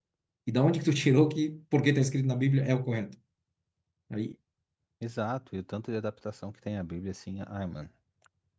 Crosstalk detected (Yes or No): No